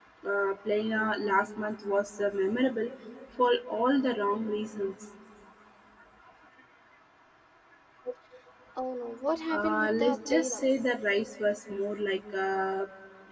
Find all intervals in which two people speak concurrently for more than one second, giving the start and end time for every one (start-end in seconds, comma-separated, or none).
9.5-10.7